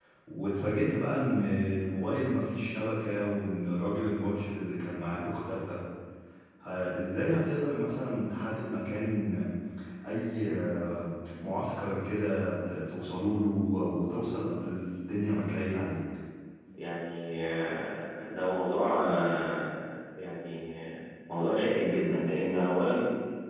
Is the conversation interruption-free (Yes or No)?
Yes